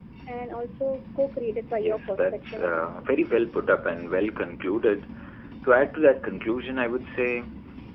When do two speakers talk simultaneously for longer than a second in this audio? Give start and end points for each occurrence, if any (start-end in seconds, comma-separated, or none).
1.8-3.0